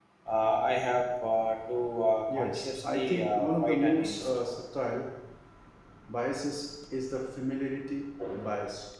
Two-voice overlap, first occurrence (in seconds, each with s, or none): 2.3 s